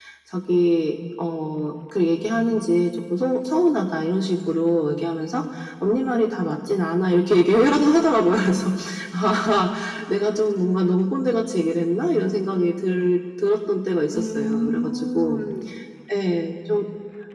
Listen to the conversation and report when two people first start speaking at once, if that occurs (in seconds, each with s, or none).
14.1 s